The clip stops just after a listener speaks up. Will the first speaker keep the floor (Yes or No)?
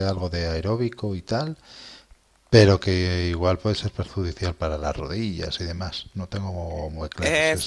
No